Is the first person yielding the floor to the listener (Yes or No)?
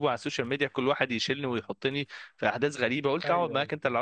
No